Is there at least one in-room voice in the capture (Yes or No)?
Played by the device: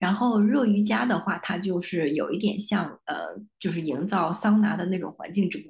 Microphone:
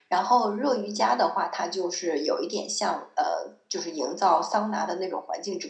No